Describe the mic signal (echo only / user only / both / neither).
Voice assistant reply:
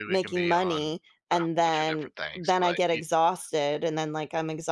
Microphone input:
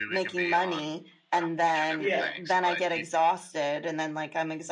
both